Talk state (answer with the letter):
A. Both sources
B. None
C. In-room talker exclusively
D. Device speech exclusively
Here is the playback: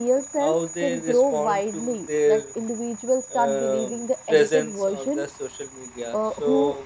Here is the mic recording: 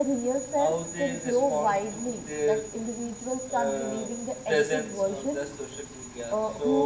D